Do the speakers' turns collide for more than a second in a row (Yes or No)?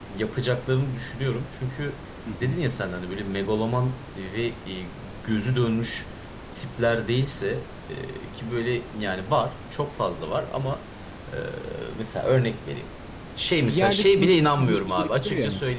Yes